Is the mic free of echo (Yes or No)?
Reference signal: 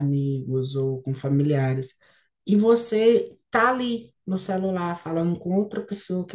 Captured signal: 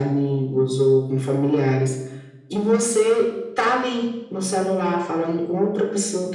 No